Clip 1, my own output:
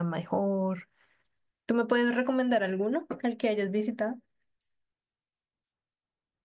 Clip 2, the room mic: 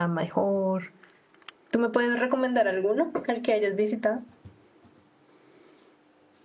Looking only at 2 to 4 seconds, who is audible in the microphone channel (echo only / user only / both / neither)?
echo only